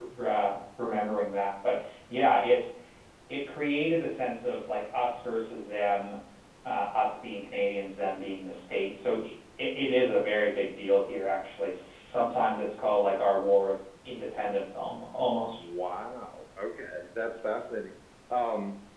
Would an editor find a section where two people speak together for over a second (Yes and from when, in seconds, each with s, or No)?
No